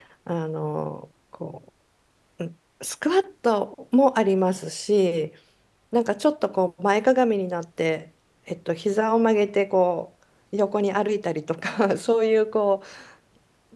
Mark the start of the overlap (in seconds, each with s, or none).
none